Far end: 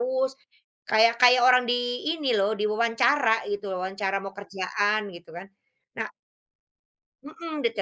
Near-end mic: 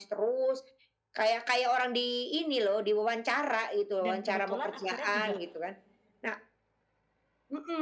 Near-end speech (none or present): present